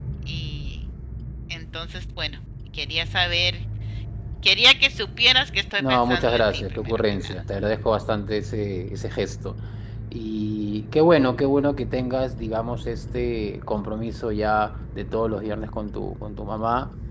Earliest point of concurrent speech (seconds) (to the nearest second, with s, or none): 6 s